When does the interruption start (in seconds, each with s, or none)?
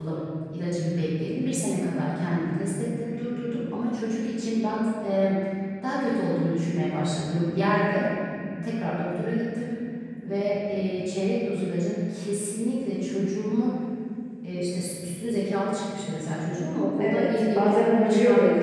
17.0 s